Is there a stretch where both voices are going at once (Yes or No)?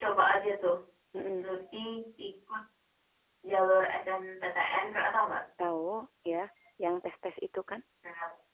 No